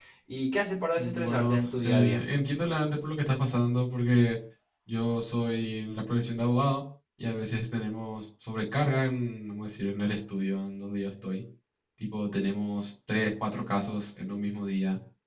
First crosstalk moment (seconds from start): 0.9 s

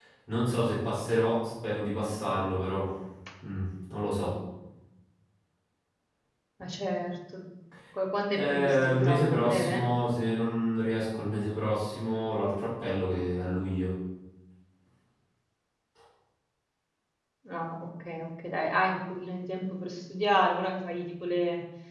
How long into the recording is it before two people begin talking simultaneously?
8.3 s

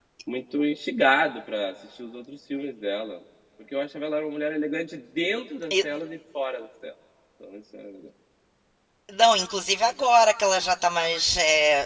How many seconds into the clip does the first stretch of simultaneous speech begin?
none

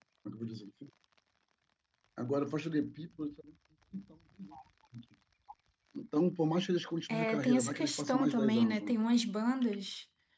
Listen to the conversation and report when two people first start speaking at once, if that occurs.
7.1 s

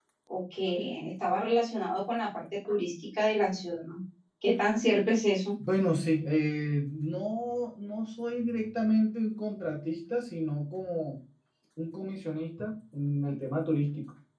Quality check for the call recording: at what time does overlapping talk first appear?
none

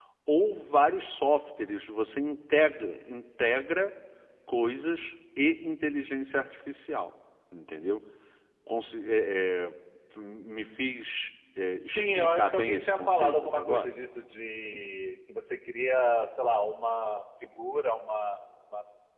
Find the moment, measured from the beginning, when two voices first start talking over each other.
11.8 s

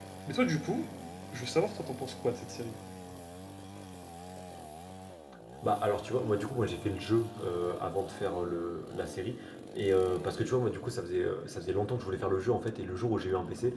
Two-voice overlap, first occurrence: none

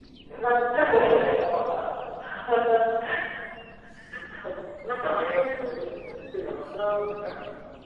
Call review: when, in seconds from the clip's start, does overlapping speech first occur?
none

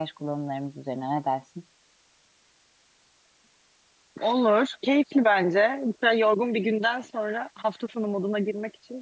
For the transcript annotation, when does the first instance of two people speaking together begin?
none

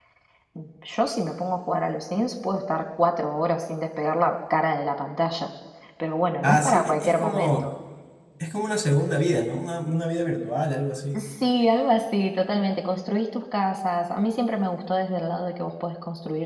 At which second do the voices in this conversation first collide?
6.4 s

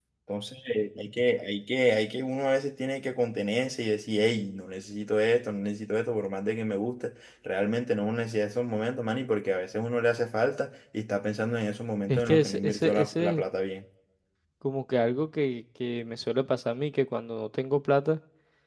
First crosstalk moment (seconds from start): 12.1 s

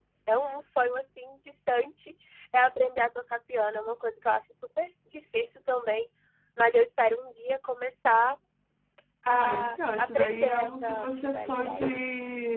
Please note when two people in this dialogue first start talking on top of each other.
9.3 s

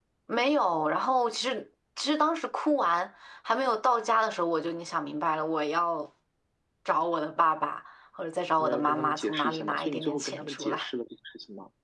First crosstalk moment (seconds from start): 8.6 s

